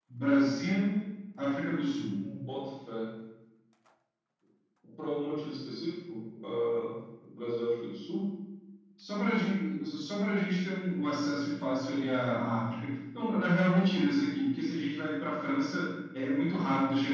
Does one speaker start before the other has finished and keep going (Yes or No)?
No